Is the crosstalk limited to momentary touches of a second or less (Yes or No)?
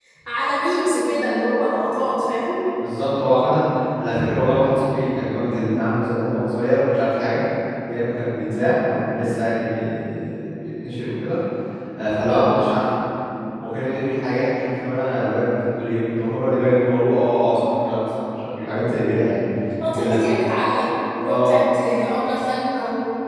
Yes